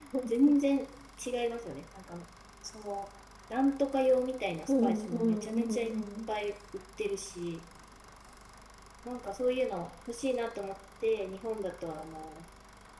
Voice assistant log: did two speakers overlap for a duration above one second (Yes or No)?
Yes